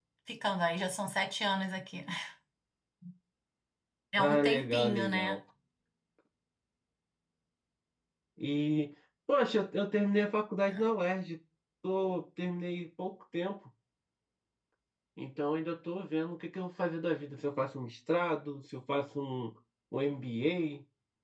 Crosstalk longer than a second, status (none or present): present